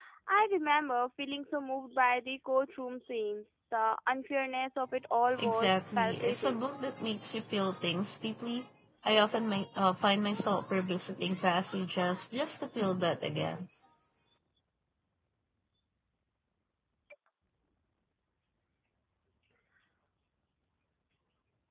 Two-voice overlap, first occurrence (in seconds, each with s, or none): 5.4 s